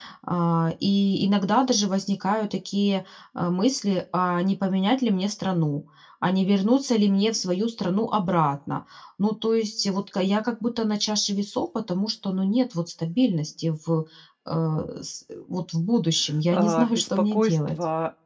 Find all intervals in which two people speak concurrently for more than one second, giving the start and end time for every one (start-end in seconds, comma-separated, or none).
16.5-17.8